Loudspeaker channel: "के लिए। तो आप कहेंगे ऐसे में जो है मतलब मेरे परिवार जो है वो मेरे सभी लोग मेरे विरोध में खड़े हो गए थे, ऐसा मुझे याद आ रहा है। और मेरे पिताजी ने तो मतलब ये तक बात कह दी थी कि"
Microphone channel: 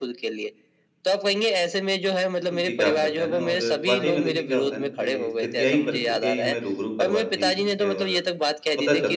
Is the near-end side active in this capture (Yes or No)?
Yes